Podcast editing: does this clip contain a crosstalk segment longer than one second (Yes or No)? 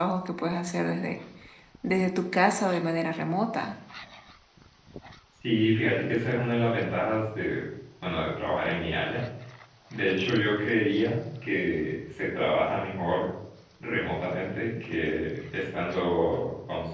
No